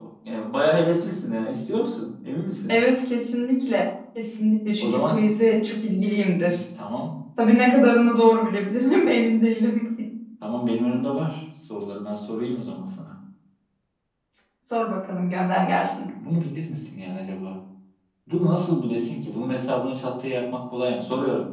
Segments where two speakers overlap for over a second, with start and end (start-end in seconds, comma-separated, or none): none